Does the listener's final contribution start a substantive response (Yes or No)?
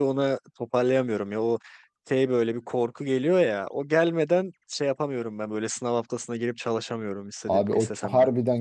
Yes